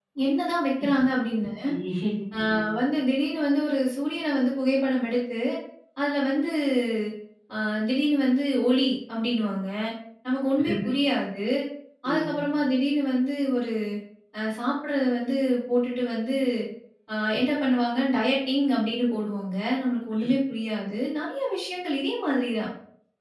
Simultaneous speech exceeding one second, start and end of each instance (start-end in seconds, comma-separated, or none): none